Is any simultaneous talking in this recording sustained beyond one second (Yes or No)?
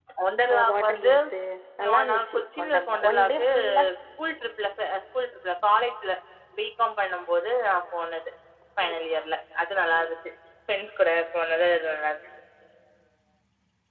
Yes